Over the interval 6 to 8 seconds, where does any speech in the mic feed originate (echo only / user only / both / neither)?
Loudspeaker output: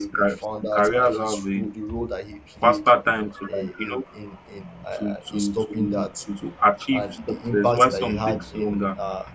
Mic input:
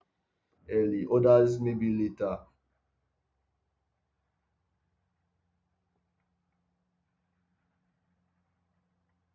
neither